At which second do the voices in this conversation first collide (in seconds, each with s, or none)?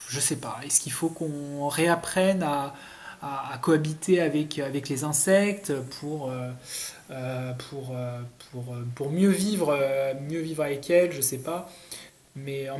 none